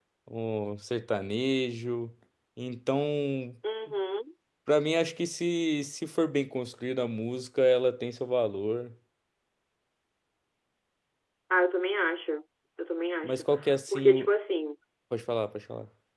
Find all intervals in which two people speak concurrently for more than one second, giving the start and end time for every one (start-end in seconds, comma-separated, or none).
none